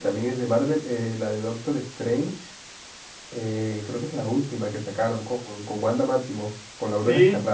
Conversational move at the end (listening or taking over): taking over